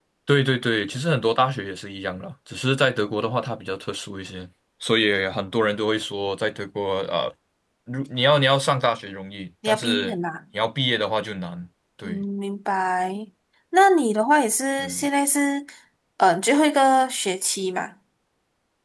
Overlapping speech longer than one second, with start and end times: none

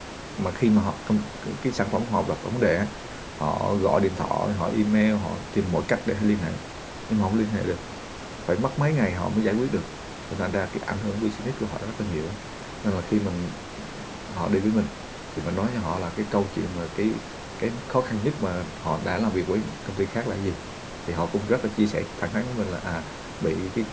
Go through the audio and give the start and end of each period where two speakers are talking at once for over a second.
none

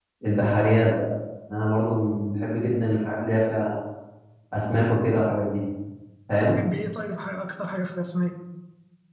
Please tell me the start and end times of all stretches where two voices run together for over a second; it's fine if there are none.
none

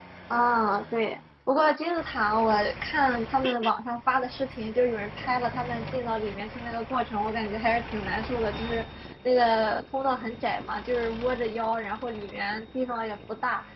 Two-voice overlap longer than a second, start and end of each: none

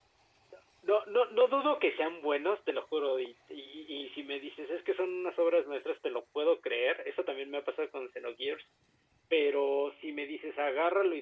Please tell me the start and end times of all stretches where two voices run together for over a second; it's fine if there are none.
none

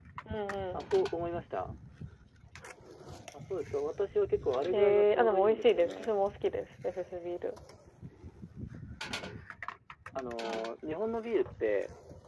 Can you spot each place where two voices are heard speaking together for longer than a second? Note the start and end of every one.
4.7-6.1

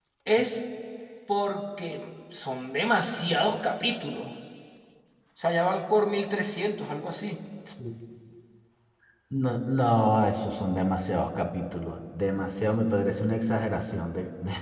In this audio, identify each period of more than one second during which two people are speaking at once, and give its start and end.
none

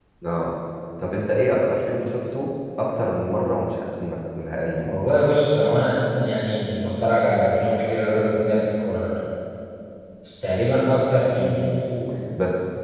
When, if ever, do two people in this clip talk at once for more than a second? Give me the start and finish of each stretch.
none

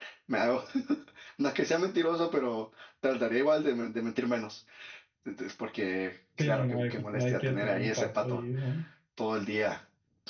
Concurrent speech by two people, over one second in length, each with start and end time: 6.4-8.4

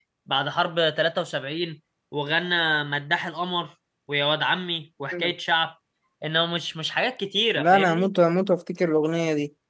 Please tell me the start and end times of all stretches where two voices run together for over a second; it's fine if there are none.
none

